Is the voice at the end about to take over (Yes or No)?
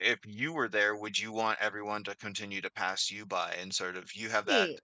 No